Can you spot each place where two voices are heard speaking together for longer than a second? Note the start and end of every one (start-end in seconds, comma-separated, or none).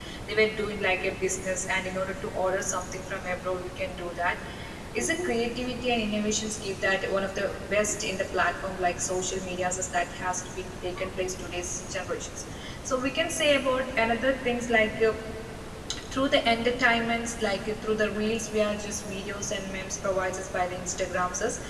none